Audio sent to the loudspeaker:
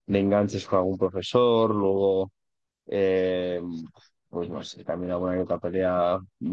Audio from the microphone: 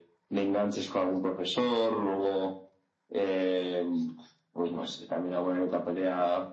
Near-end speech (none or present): none